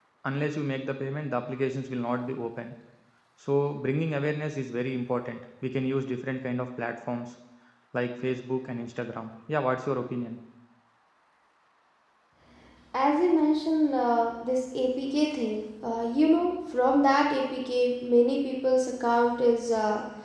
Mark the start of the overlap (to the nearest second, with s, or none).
none